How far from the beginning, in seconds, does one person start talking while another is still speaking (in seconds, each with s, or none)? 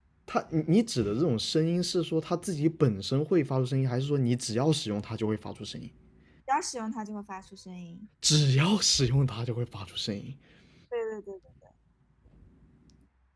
none